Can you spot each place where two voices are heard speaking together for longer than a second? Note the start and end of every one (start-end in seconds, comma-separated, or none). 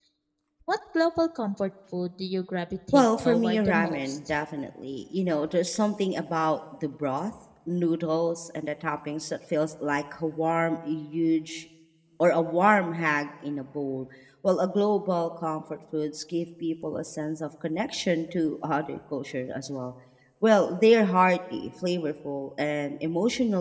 2.9-4.3